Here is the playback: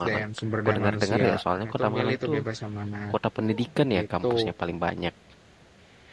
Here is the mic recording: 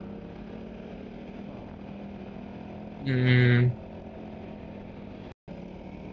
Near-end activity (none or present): present